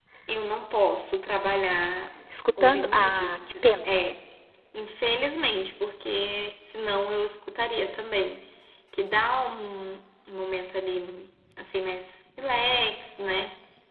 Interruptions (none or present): present